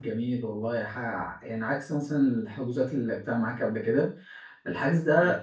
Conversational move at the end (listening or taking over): listening